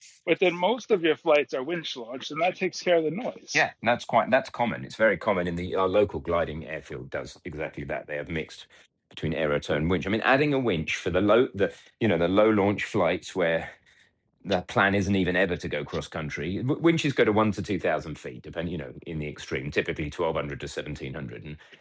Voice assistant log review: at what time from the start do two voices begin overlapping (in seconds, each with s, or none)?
none